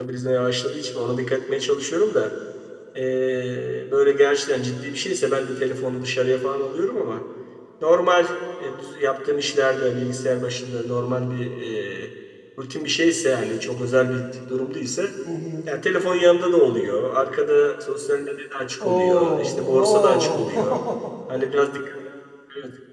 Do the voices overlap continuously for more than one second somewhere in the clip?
Yes, from 18.8 s

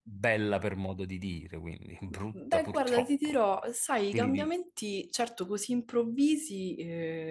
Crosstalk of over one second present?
Yes, from 2.1 s

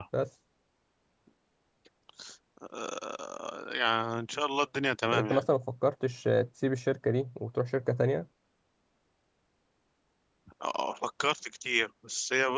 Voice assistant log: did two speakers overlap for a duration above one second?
No

